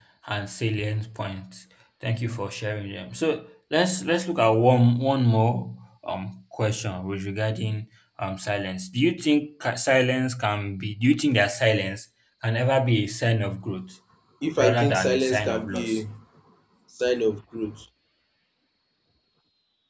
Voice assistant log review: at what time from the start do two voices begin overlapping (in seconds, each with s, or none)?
14.6 s